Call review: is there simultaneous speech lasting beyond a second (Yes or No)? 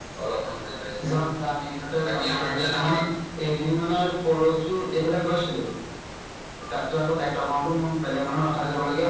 Yes